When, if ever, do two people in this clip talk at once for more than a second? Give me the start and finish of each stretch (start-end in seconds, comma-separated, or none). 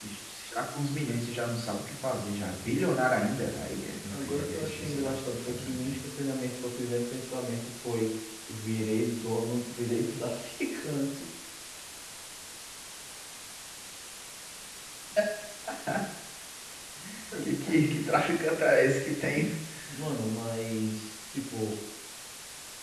4.1-6.0